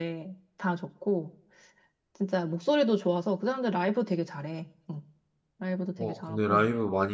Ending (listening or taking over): taking over